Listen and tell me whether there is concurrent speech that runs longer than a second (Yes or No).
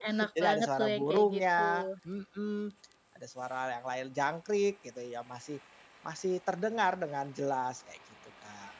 Yes